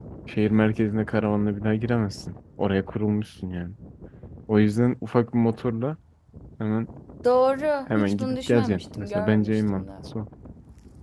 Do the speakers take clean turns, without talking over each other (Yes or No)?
No